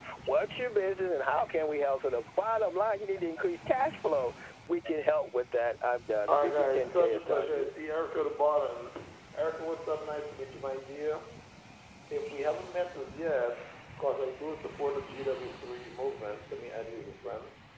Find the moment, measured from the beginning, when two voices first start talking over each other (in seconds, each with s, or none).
6.3 s